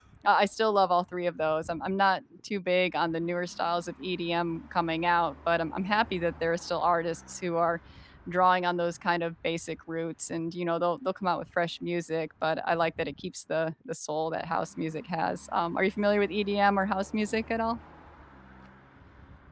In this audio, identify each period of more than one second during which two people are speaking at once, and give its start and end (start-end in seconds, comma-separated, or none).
none